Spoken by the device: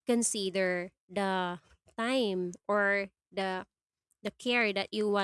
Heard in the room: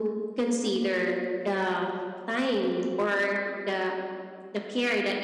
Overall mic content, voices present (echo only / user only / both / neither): echo only